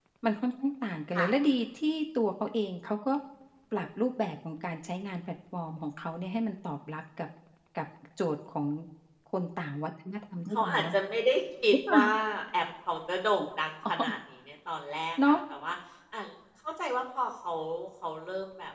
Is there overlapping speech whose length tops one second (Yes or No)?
No